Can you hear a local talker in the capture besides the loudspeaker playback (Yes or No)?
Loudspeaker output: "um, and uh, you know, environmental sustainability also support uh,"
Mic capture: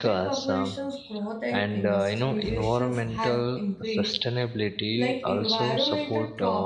Yes